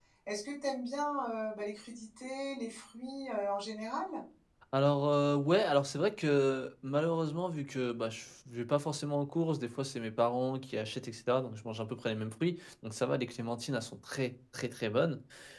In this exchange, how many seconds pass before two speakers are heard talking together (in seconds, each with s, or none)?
none